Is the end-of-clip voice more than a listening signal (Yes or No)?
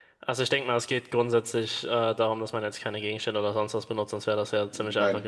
No